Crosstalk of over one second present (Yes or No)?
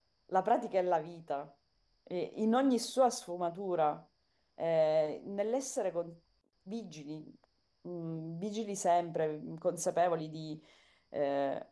No